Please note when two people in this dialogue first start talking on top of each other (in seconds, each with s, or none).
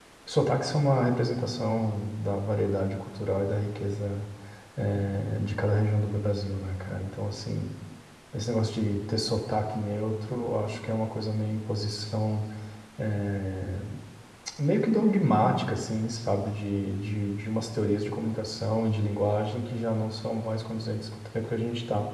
none